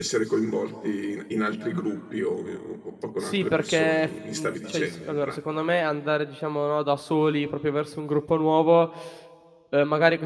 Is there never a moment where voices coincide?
No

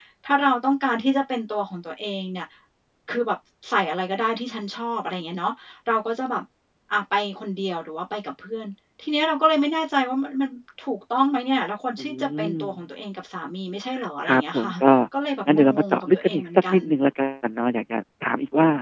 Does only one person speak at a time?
No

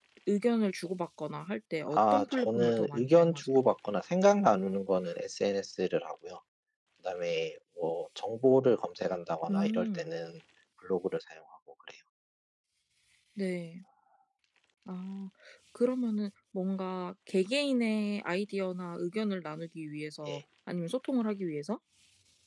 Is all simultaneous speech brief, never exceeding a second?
No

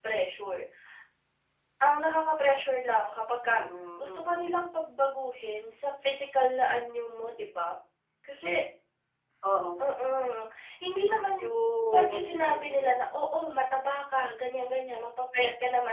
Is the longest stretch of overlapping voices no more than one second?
No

